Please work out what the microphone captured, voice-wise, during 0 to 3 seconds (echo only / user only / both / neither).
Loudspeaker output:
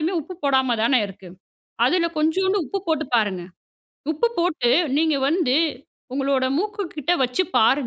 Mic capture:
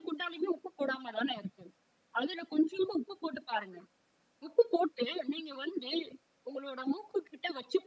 echo only